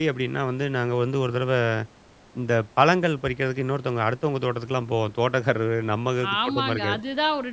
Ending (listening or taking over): taking over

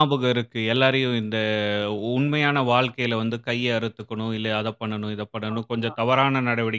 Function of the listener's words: listening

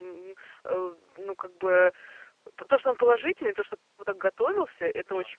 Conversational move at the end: listening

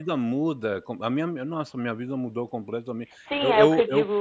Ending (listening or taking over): taking over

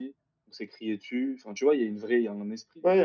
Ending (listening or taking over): taking over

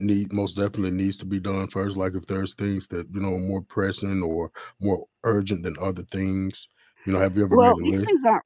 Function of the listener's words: taking over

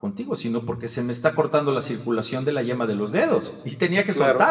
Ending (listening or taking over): taking over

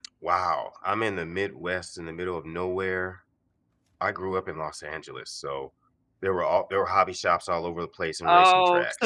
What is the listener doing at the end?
taking over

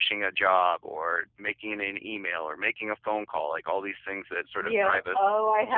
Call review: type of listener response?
taking over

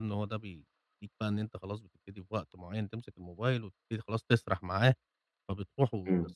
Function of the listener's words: listening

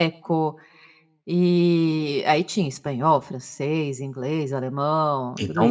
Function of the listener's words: taking over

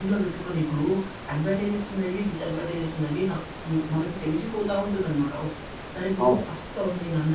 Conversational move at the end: listening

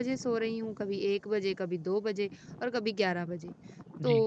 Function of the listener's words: listening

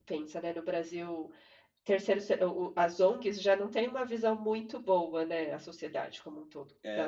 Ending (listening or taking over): taking over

